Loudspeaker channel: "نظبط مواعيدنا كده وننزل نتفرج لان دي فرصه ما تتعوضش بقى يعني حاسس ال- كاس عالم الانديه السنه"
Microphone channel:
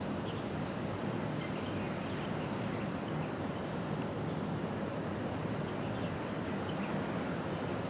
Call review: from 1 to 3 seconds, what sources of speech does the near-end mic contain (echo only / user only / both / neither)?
neither